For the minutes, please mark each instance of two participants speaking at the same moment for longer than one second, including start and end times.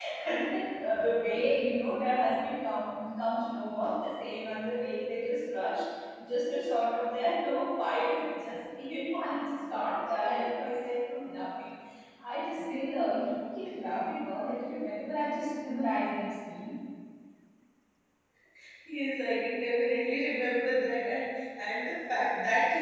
none

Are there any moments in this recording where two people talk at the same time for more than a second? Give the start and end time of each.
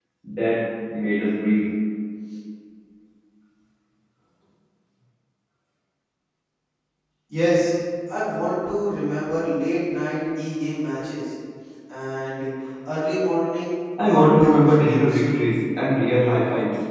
14.1-15.5

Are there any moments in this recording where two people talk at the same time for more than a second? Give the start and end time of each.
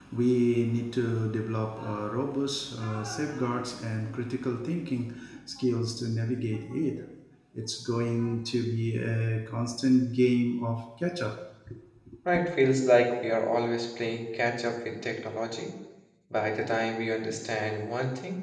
none

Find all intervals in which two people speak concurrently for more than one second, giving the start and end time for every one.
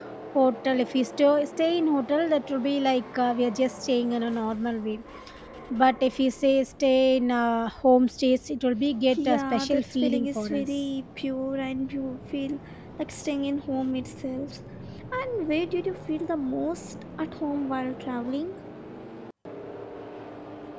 9.2-10.7

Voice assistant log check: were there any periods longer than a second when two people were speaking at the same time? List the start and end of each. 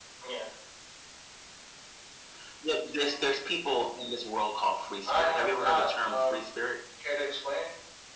5.1-6.4

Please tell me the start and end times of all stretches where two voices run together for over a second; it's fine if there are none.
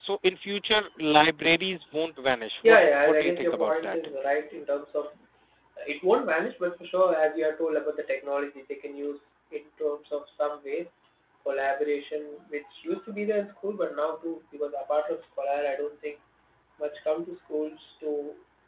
2.6-4.0

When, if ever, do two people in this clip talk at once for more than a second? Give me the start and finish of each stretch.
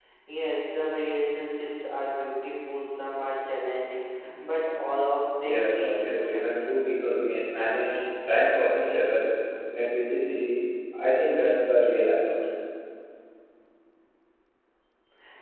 5.4-6.8

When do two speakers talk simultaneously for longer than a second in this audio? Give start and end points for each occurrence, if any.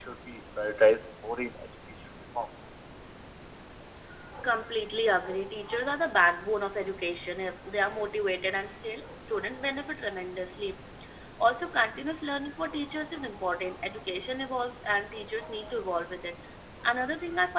none

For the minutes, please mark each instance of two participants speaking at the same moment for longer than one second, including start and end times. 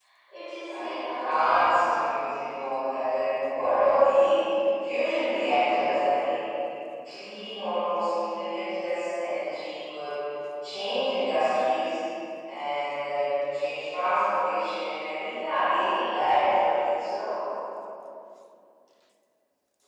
0.7-2.3

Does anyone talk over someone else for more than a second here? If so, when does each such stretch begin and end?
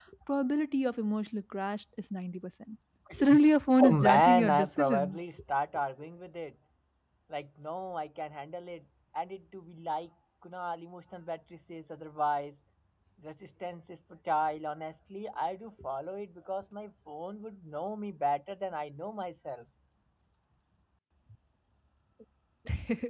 3.8-5.2

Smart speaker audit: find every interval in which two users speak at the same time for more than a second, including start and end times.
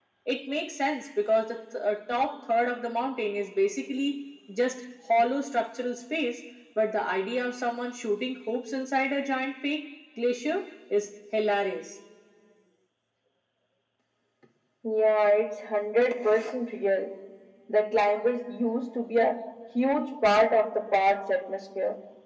none

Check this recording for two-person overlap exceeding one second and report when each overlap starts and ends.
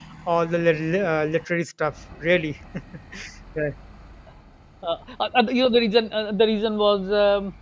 none

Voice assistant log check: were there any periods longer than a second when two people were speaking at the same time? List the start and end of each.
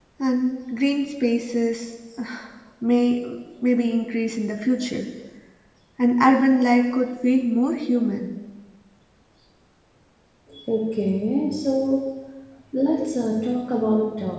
none

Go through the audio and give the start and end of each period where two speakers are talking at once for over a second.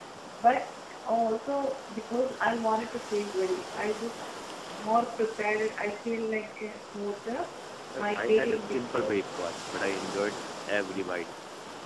8.0-9.2

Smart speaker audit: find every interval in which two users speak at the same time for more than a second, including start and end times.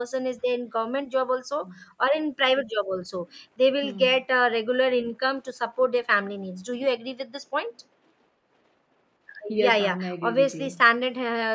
9.5-10.8

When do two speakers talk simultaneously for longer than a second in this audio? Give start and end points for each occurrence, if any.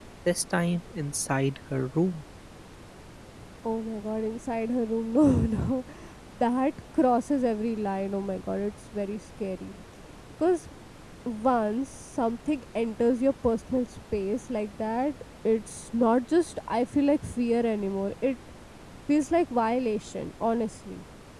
none

